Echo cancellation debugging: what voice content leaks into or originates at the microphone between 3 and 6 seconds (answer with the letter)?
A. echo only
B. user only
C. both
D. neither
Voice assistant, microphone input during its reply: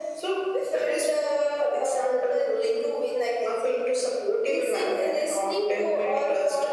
A